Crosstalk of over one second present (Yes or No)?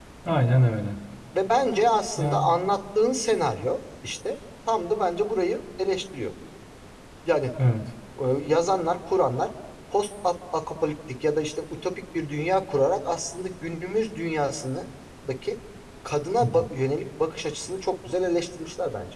No